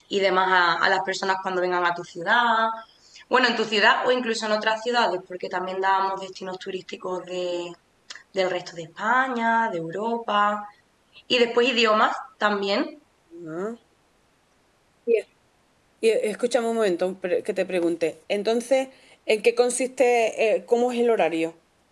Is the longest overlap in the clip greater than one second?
No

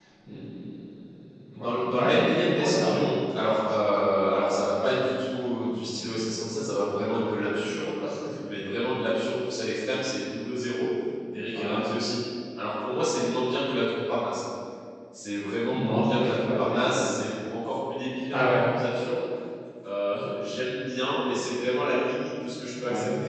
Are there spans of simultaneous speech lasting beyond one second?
Yes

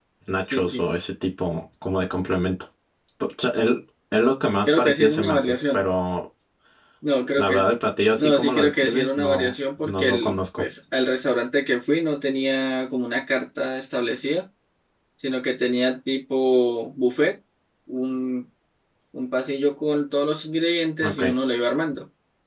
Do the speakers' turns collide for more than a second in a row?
Yes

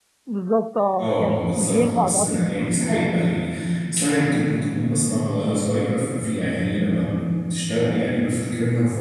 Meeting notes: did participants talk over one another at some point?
Yes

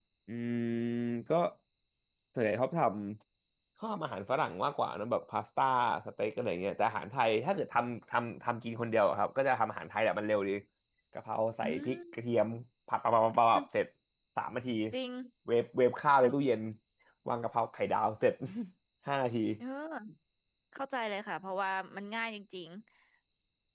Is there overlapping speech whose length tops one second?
No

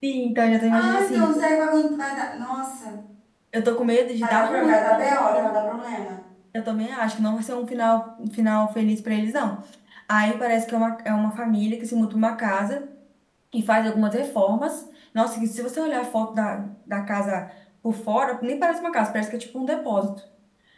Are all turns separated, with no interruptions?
No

